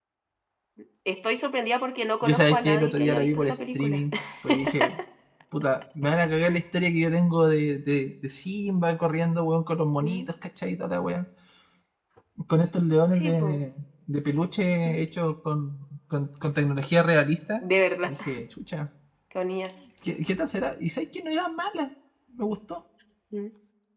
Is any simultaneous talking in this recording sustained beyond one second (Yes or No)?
Yes